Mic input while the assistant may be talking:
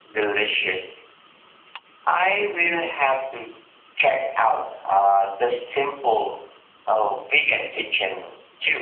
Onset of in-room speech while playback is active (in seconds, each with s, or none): none